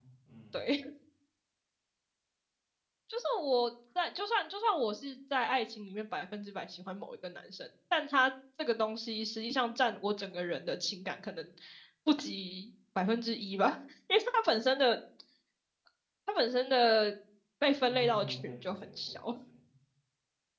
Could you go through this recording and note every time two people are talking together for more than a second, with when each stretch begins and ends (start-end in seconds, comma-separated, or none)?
17.9-19.2